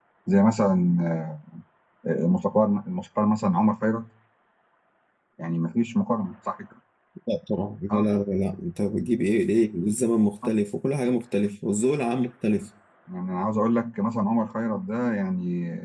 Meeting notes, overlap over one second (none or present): none